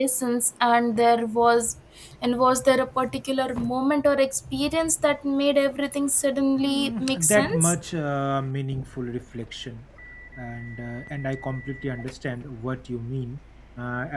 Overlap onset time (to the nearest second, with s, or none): 7 s